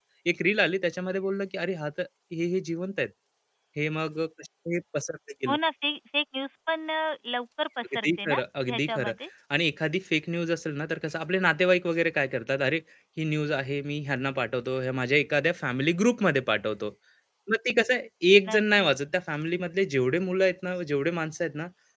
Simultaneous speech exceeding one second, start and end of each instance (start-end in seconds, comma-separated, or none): 7.8-9.1